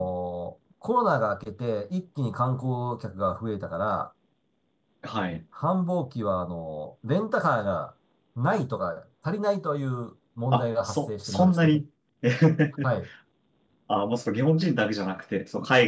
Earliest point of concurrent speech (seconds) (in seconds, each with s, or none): 10.5 s